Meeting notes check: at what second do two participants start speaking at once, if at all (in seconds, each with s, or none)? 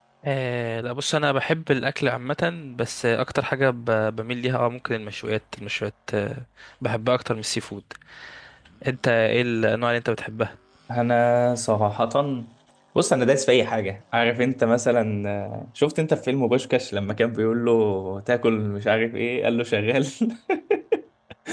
none